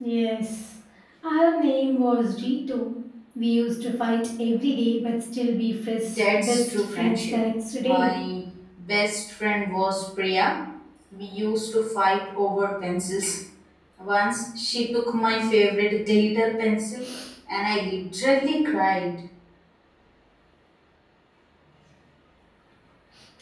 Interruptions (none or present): present